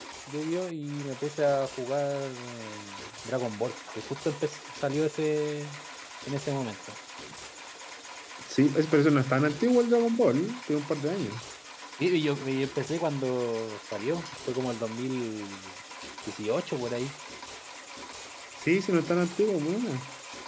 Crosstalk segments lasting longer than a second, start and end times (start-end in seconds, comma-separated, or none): none